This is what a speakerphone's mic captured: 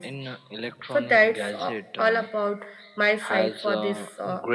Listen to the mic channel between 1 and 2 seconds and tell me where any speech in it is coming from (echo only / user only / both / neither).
echo only